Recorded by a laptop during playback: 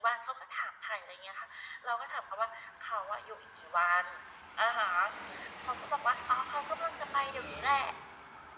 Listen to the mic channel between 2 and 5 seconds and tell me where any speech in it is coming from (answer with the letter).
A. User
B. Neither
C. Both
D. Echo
D